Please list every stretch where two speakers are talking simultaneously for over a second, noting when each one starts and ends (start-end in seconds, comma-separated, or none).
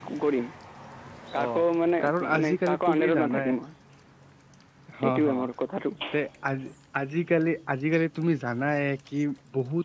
2.0-3.5